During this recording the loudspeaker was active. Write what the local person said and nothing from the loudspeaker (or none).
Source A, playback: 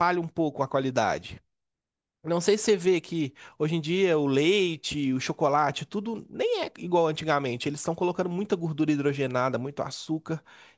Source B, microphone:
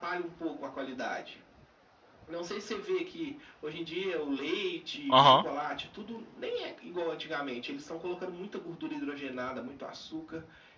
Aham.